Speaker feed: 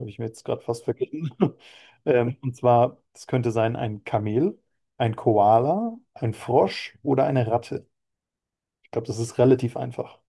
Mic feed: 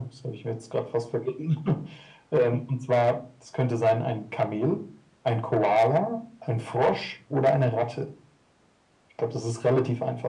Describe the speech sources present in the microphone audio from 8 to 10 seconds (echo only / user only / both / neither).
echo only